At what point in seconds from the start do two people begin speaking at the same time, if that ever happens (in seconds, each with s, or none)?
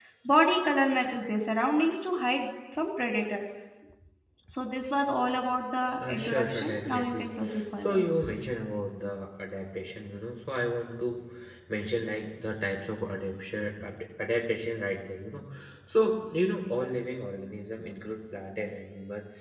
6.0 s